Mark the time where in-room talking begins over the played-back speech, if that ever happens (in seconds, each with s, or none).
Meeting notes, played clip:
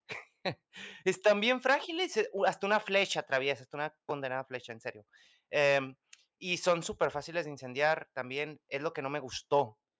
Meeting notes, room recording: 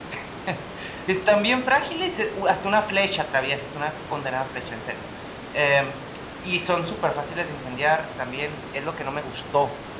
none